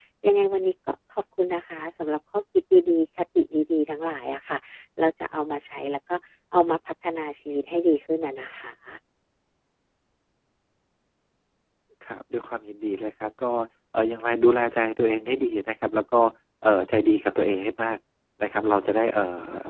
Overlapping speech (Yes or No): No